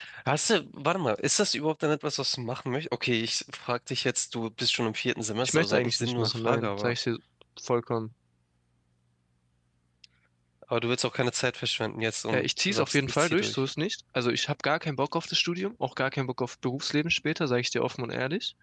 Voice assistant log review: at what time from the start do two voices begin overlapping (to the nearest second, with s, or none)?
5 s